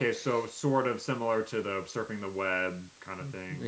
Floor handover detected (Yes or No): Yes